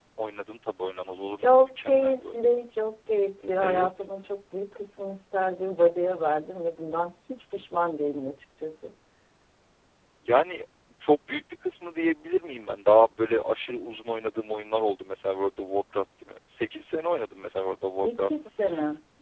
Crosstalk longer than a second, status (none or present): present